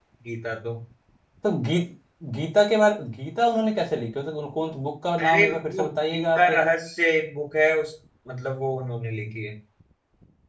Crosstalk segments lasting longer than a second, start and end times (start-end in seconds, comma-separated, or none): 5.2-6.5